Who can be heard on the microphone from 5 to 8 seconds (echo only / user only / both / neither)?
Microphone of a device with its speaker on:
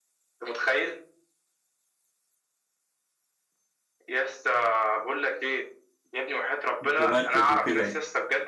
both